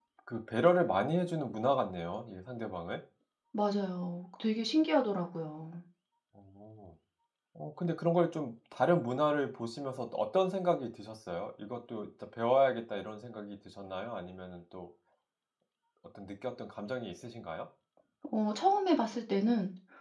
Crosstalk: none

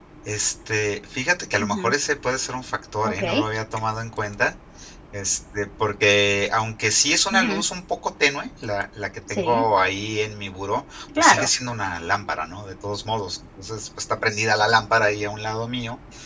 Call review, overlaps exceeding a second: none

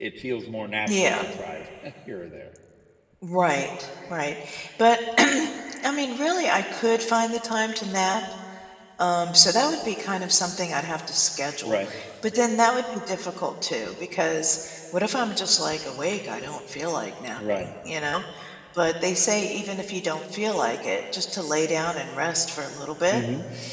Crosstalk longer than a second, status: none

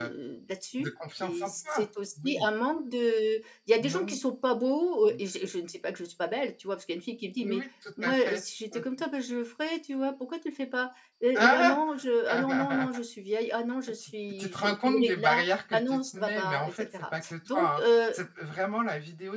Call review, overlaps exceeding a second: present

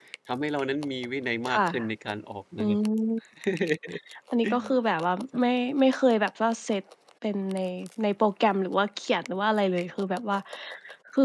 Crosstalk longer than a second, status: none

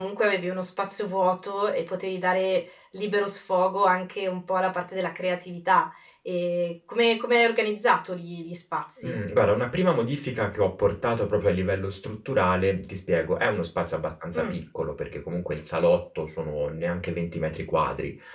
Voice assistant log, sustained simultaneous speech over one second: none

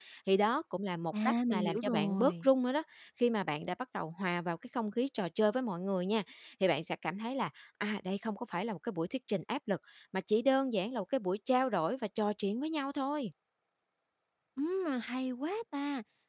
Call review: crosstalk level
present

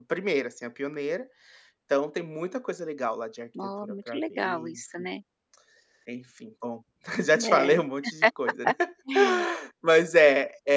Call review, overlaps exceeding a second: present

